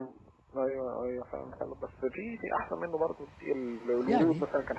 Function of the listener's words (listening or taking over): listening